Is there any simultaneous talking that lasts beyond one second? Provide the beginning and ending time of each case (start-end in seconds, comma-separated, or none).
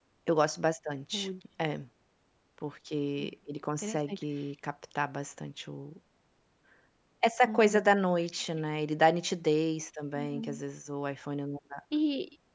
none